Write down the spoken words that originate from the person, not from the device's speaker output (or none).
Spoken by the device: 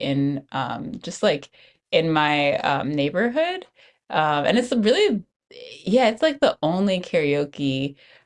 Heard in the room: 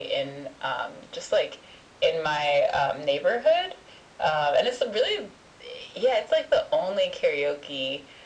none